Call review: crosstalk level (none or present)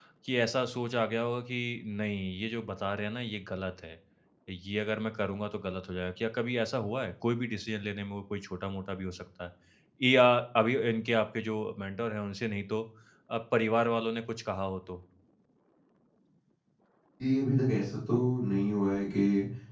none